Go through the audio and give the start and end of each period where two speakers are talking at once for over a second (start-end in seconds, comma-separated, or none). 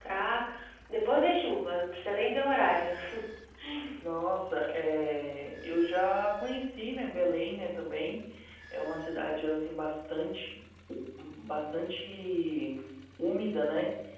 none